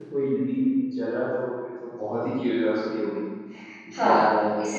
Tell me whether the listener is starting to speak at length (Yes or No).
Yes